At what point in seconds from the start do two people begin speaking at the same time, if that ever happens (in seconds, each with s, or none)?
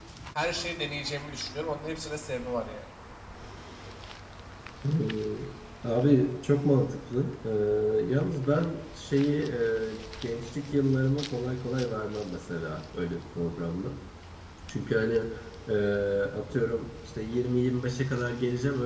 none